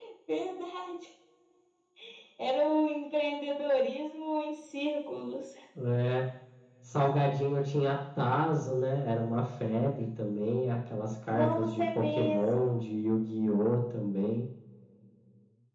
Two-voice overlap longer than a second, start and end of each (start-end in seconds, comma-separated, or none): 11.3-12.8